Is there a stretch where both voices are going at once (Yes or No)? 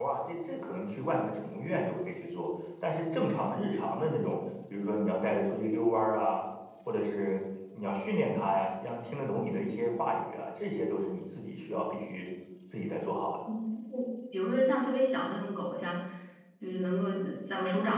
No